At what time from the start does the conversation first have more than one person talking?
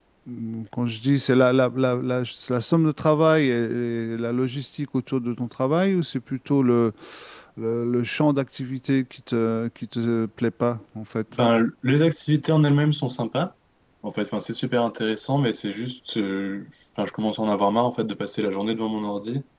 none

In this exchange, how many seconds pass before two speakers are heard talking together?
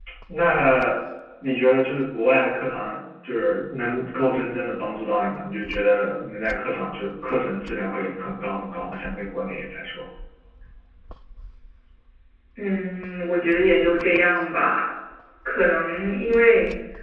none

